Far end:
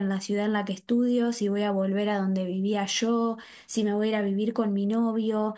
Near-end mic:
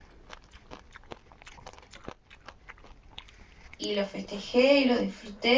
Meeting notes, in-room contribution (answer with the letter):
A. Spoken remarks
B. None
A